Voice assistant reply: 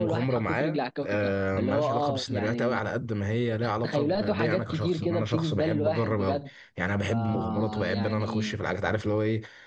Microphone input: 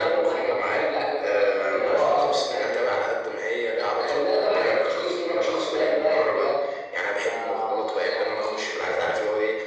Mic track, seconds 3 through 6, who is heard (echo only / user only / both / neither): echo only